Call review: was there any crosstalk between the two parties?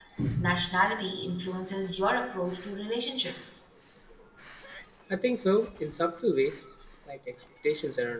No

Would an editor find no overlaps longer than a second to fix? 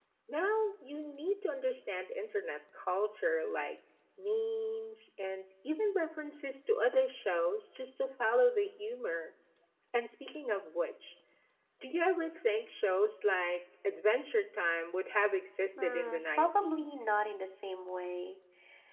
No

